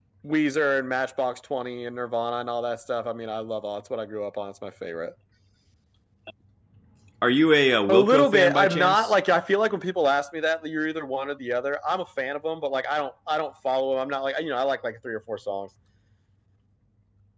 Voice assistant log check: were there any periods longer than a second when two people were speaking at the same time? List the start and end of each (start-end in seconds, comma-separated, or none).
7.9-9.1